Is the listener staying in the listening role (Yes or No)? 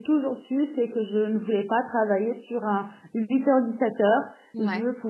Yes